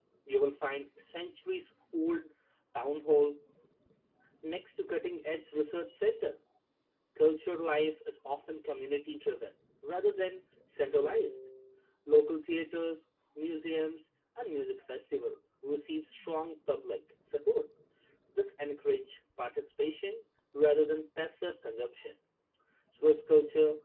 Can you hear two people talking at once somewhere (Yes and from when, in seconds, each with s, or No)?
No